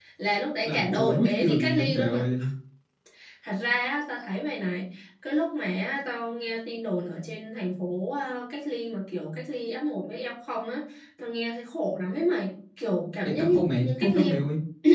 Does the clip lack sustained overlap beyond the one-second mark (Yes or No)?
No